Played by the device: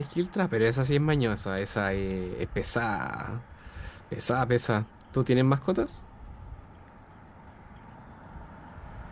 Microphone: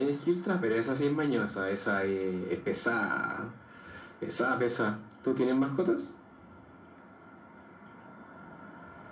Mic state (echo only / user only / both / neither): echo only